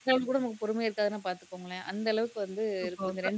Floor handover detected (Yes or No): Yes